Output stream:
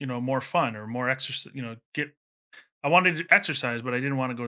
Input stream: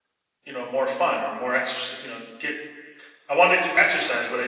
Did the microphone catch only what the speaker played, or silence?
Yes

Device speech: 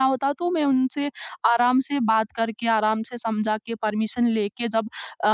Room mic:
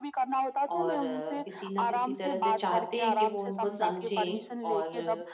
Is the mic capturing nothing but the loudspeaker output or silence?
No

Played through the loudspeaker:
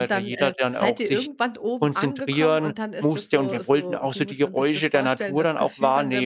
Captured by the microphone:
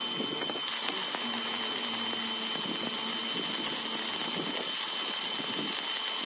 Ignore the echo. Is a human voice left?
No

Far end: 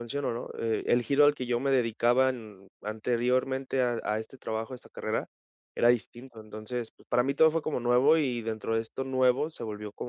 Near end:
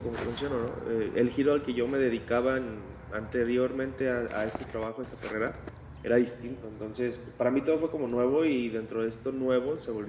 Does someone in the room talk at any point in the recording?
No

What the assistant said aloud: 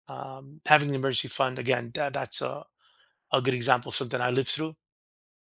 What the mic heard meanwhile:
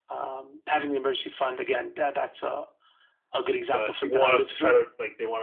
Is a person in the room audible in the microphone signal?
Yes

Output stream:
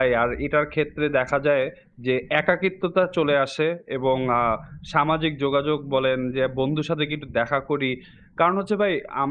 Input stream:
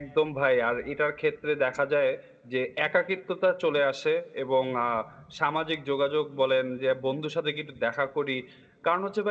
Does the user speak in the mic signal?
No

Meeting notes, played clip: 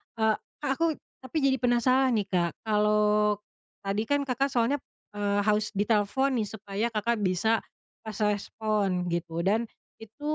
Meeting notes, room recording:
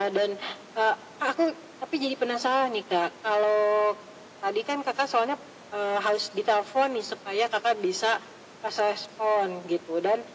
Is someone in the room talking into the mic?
No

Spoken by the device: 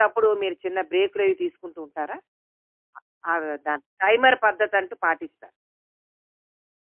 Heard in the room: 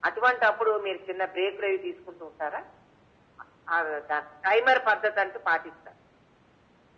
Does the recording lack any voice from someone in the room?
Yes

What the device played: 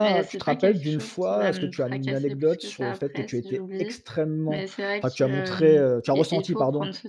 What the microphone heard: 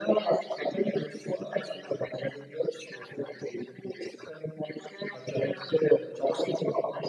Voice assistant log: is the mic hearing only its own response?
Yes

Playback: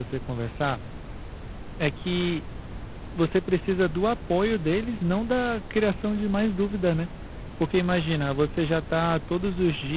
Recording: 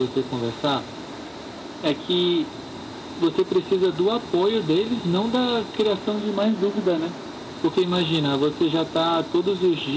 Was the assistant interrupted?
No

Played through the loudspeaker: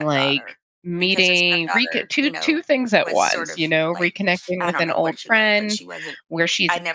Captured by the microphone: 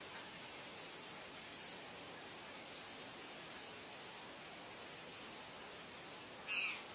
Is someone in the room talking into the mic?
No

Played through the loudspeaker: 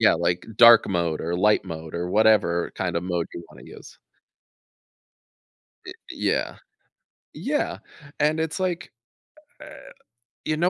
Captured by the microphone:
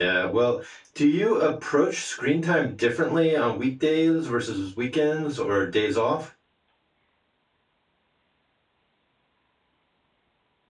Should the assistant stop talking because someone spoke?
Yes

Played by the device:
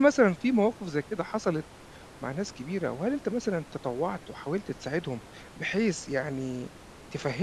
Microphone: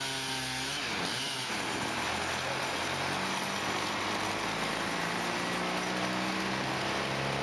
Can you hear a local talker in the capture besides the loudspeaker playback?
No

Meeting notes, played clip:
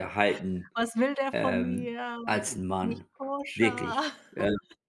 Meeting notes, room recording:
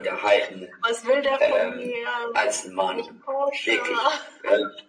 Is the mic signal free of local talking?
Yes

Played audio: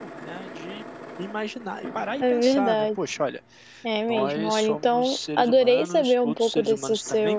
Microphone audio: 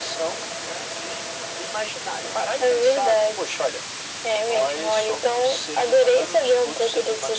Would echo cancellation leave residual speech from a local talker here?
No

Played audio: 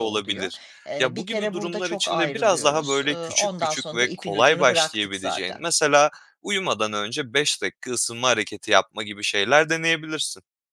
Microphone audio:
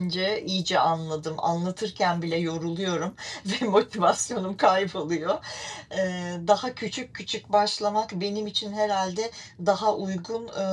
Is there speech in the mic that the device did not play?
Yes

